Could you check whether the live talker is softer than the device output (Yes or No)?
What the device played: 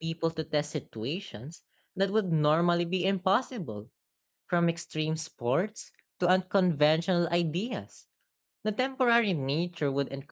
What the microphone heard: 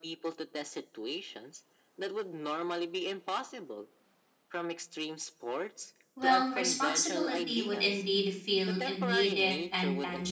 No